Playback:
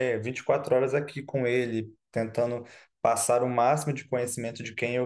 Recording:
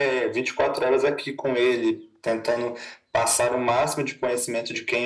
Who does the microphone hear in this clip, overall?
echo only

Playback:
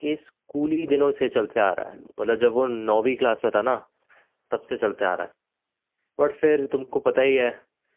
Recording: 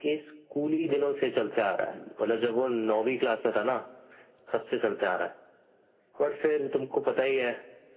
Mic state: echo only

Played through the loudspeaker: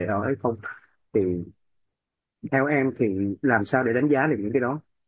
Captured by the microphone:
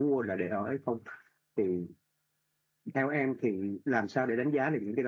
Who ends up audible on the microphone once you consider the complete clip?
echo only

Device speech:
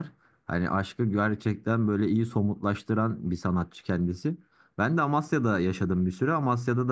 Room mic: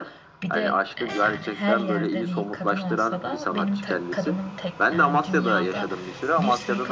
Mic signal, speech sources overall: both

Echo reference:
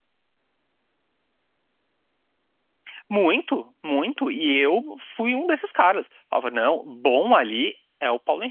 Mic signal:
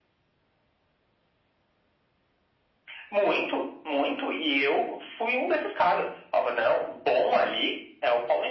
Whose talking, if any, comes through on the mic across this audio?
echo only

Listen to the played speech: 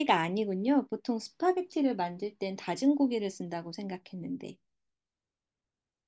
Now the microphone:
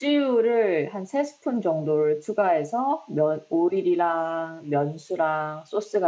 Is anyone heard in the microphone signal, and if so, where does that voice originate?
user only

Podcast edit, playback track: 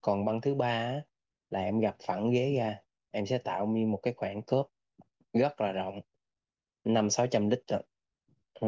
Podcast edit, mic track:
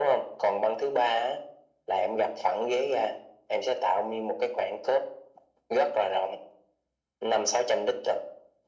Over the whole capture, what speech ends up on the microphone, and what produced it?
echo only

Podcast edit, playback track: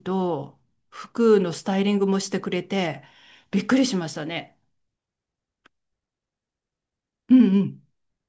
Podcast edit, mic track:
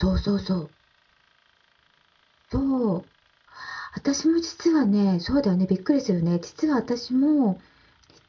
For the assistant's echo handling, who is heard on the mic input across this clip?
user only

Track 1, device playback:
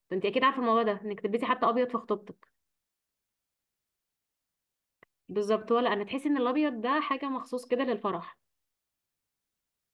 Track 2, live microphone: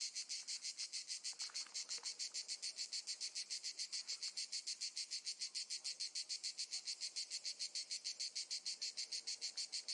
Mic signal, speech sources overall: neither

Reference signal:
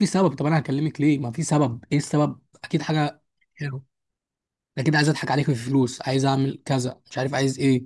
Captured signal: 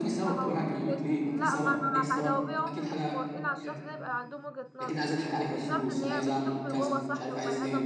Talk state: both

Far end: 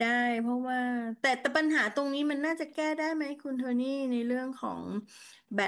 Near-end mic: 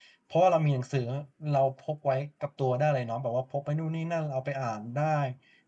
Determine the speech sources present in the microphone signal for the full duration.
user only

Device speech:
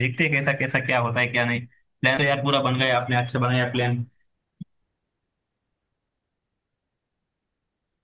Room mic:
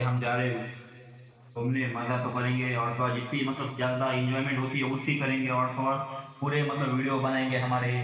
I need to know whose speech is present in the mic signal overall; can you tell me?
user only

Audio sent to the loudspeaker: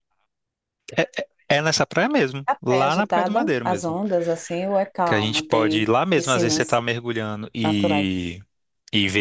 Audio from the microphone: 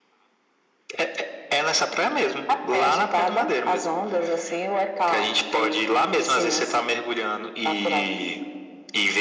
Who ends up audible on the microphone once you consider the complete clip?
echo only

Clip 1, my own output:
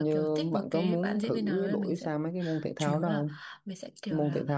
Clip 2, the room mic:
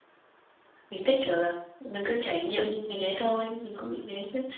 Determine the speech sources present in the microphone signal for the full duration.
user only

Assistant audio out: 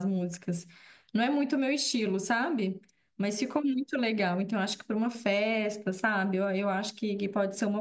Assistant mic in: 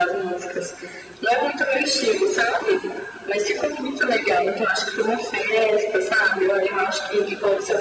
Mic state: echo only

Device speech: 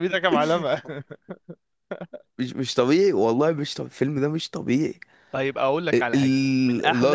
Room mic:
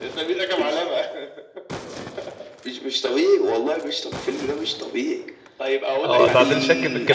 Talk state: both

